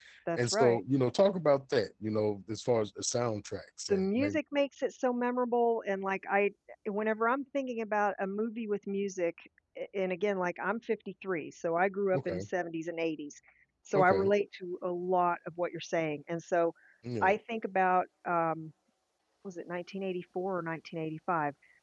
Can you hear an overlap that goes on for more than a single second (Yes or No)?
No